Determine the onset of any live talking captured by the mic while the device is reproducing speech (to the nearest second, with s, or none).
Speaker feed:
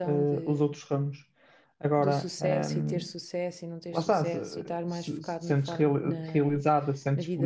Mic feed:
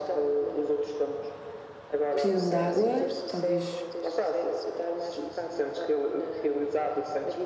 2 s